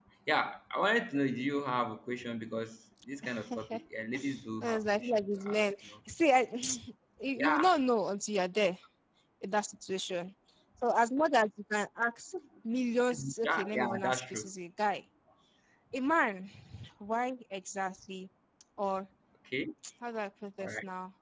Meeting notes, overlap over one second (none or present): present